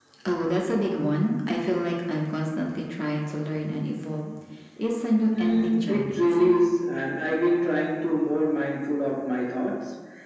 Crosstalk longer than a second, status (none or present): present